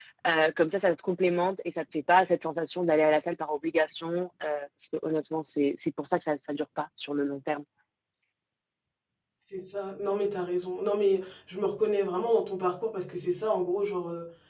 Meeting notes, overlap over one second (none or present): none